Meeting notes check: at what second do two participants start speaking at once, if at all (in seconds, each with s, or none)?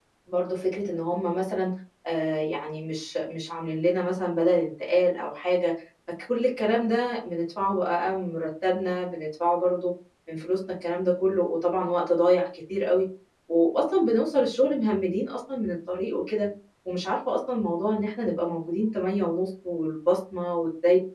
none